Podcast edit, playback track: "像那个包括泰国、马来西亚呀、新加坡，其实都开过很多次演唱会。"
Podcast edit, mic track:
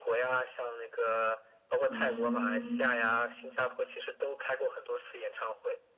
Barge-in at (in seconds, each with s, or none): 1.9 s